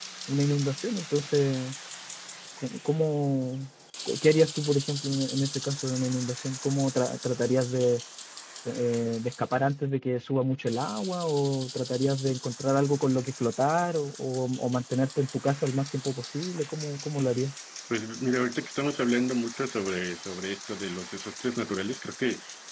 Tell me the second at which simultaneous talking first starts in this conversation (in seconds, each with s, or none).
none